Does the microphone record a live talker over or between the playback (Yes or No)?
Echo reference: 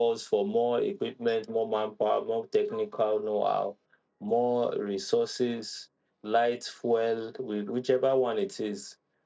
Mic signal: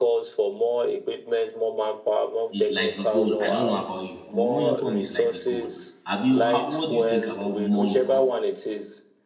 Yes